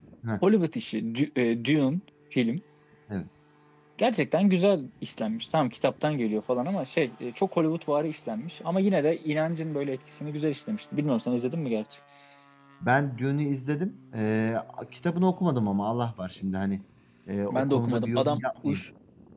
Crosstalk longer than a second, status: present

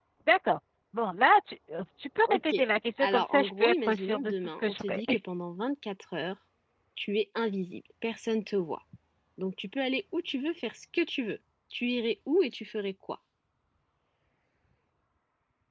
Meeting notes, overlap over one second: present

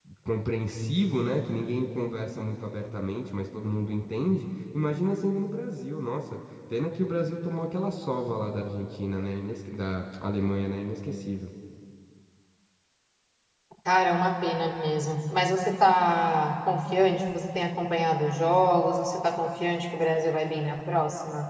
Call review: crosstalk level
none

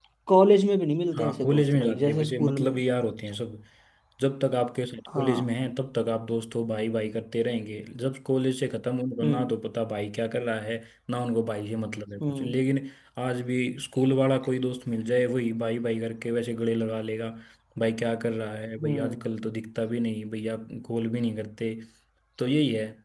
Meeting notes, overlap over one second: present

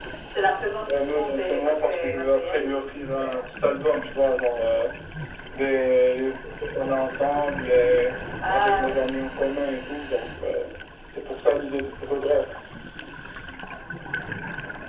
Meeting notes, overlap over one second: present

